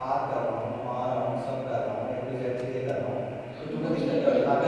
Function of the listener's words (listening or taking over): taking over